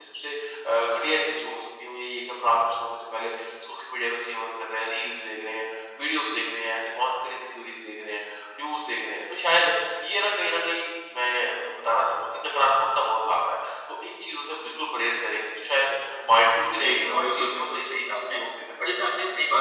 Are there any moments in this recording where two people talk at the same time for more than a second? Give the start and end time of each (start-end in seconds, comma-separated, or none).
16.8-18.4